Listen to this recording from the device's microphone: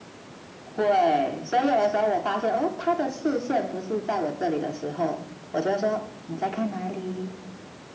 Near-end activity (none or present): none